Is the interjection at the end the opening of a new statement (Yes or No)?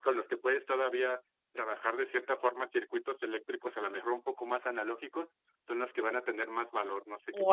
Yes